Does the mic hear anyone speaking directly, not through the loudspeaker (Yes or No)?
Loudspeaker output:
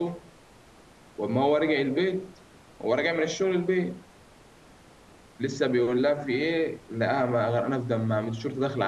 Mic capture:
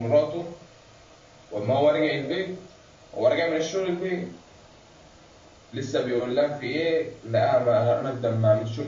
No